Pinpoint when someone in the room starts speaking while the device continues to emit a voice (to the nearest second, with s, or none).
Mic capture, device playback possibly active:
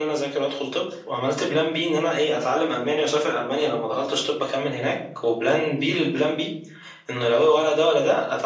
none